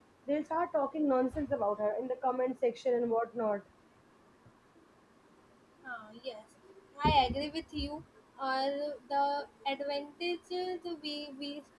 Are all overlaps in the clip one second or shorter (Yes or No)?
Yes